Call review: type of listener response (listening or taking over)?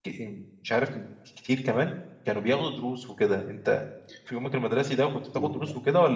taking over